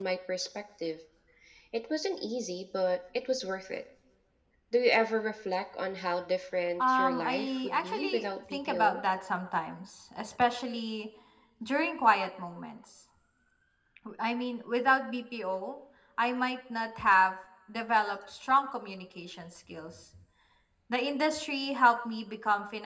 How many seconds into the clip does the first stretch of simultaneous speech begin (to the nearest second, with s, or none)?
7 s